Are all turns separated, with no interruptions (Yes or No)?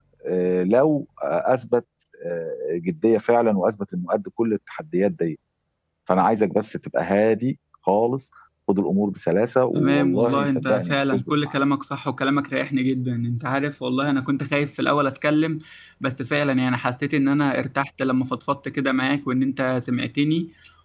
No